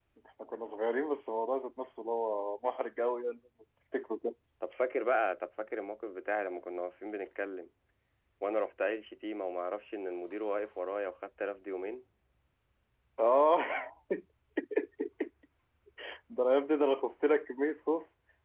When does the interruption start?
none

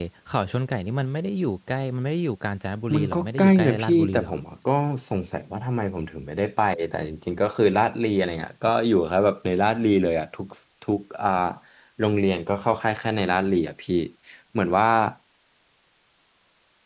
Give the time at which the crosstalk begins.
2.9 s

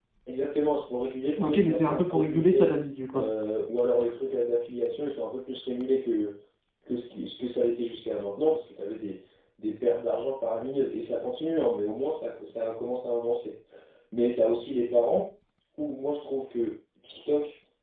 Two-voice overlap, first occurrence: 1.4 s

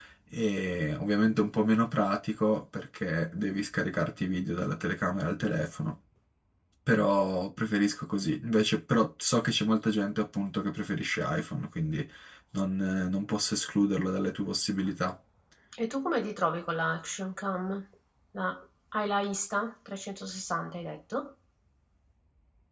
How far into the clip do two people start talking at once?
none

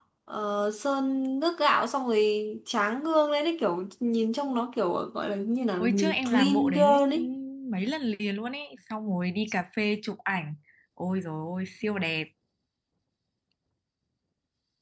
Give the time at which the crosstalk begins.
5.8 s

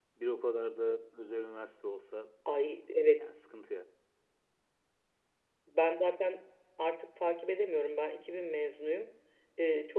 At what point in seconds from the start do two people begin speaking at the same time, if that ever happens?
none

